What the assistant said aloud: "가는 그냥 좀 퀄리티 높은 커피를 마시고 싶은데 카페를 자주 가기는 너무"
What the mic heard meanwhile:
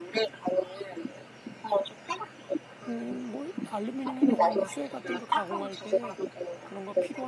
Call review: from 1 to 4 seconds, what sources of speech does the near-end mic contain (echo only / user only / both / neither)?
both